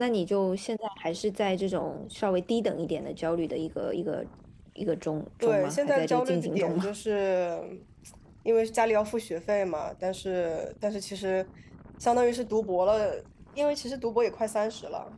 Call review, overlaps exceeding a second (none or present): present